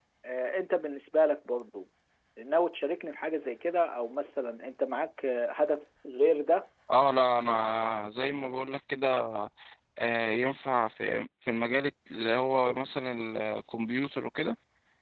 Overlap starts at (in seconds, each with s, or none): none